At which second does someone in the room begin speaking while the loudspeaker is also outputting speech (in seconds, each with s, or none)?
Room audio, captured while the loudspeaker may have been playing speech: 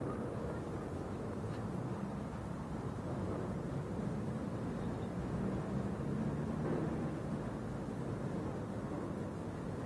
none